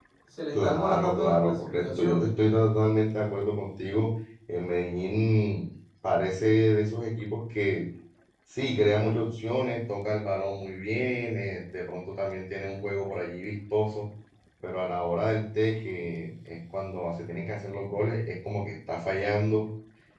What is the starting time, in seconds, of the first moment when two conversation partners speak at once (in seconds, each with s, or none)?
0.6 s